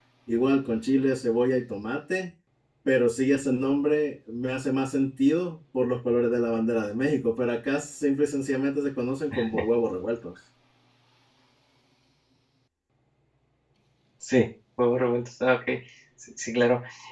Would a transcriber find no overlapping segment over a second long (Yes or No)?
Yes